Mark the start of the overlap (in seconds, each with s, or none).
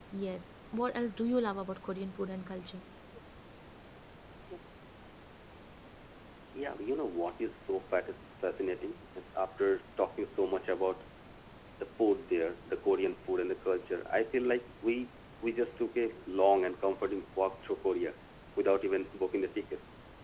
none